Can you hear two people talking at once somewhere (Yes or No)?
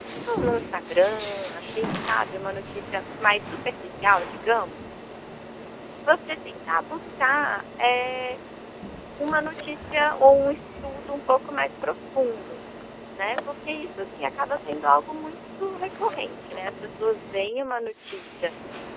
No